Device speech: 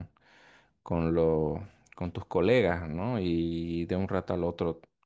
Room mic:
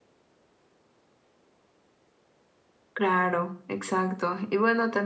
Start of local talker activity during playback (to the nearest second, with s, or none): 3 s